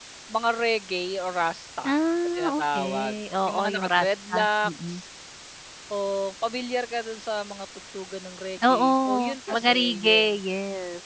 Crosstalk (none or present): present